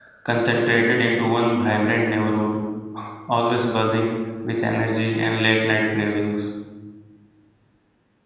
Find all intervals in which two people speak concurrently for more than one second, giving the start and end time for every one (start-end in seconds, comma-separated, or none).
none